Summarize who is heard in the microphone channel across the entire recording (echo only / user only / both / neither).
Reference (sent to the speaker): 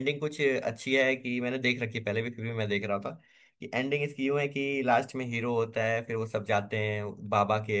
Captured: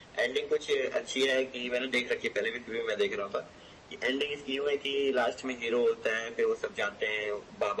echo only